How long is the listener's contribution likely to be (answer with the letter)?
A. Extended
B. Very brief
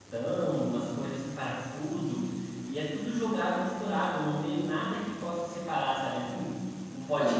B